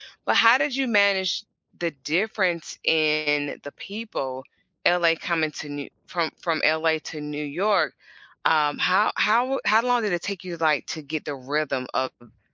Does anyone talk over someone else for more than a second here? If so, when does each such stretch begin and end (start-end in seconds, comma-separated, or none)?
none